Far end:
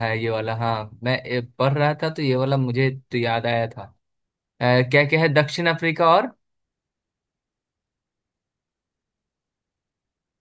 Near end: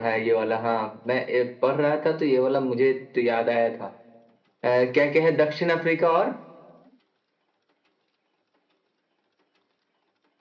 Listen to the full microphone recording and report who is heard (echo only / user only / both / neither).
echo only